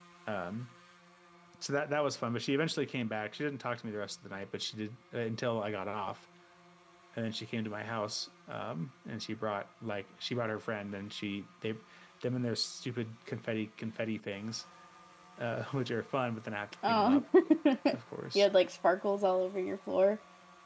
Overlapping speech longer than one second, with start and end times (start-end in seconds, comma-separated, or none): none